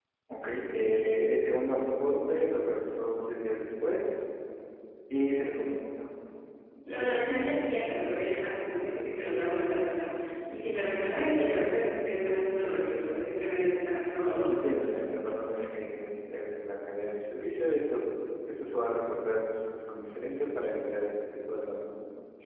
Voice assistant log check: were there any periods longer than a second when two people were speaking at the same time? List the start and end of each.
none

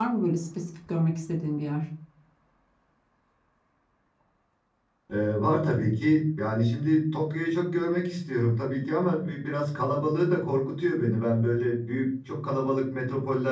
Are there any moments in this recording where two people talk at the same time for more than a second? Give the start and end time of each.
none

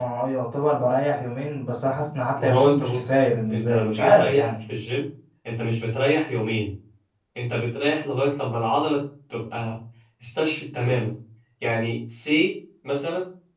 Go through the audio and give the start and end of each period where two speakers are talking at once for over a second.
2.4-4.5

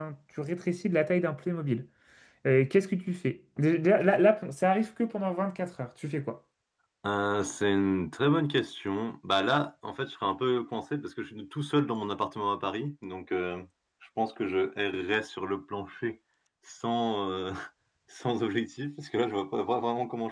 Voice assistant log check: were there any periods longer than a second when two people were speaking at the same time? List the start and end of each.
none

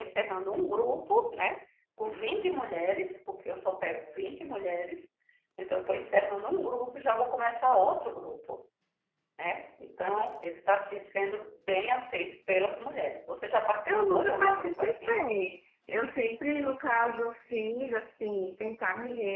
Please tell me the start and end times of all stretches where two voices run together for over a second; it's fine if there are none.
13.8-15.3

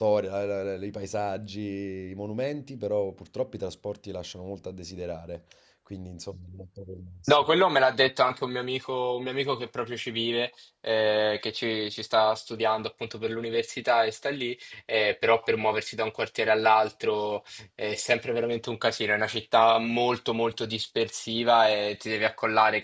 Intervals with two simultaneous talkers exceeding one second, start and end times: none

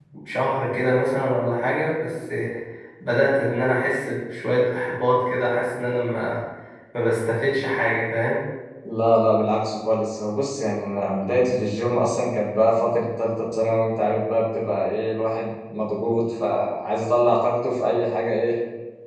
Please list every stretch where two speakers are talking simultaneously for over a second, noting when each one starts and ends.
none

